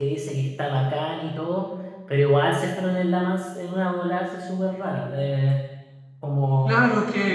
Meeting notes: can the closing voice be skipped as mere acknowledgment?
No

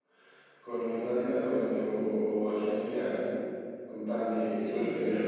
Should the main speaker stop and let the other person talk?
Yes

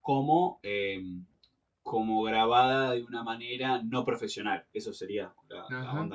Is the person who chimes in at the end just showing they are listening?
No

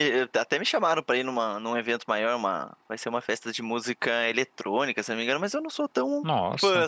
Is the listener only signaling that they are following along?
Yes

